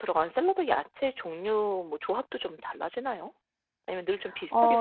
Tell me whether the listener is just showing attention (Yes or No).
No